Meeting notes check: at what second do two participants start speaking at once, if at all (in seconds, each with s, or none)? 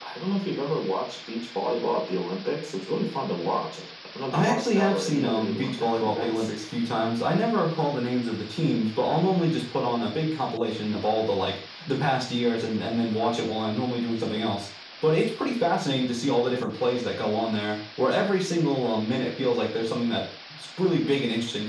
4.3 s